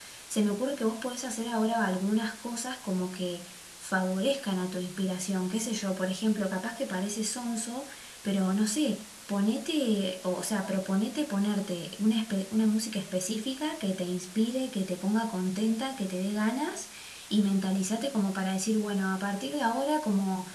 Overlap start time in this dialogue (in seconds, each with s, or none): none